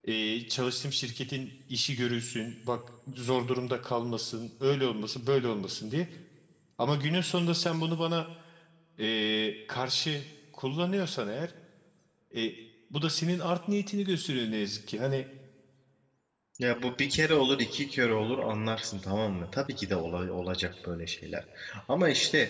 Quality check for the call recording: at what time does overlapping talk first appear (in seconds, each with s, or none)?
none